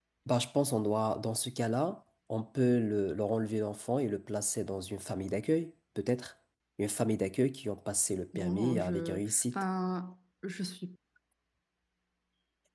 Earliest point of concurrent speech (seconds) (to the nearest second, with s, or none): 8 s